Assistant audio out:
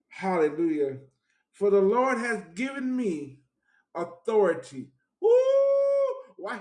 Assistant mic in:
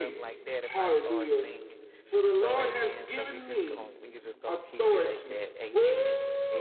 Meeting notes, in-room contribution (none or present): present